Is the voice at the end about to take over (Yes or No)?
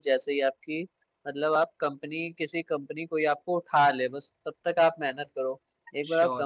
No